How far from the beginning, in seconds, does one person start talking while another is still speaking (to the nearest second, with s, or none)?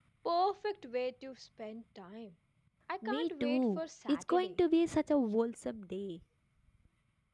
3 s